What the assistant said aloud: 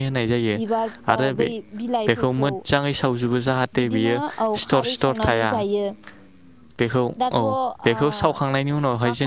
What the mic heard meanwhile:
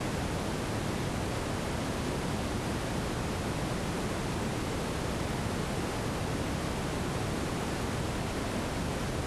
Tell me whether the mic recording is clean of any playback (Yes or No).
Yes